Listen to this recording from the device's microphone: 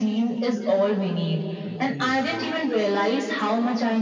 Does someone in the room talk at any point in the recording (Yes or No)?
Yes